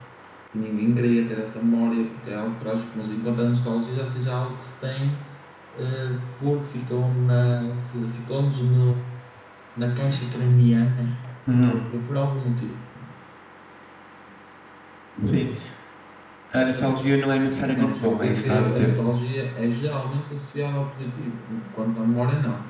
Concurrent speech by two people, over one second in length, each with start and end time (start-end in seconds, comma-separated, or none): 17.7-18.9